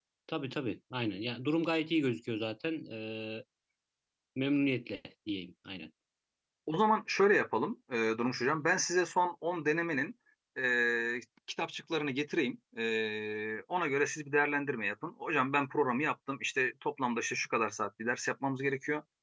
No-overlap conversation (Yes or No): Yes